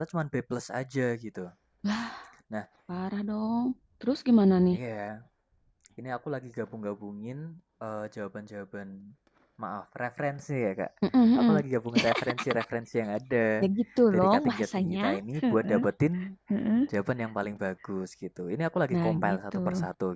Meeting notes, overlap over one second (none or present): present